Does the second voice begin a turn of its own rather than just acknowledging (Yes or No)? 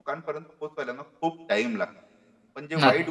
No